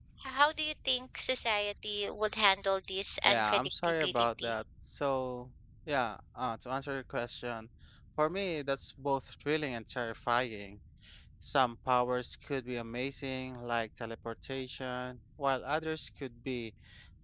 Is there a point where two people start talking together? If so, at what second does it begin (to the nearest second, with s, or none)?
3 s